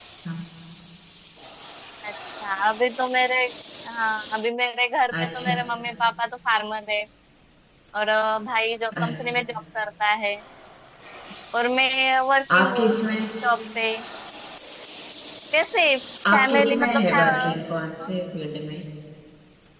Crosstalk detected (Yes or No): Yes